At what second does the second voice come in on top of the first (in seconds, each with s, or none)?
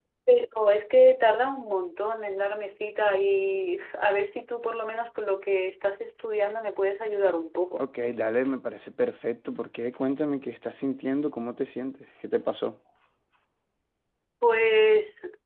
none